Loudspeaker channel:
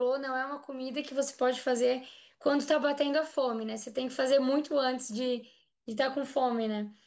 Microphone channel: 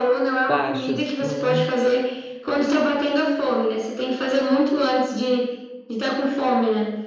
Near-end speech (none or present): present